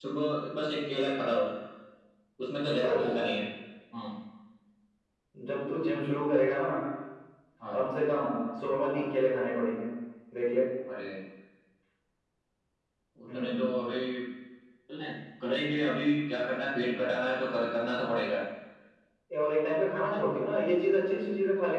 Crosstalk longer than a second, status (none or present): none